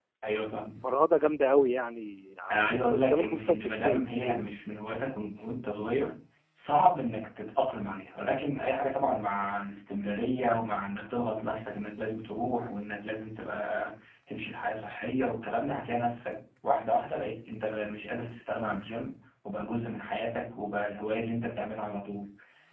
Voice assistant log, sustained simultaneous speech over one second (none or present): present